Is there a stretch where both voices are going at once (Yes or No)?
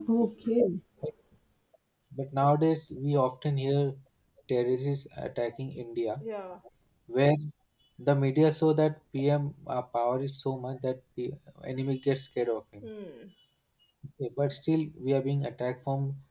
No